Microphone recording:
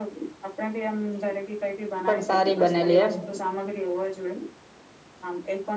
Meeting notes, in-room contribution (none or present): present